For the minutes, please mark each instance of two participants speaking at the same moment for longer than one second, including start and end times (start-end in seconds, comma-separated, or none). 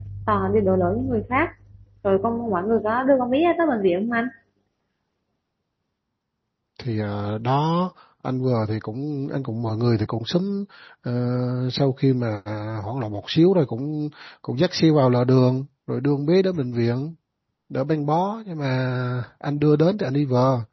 none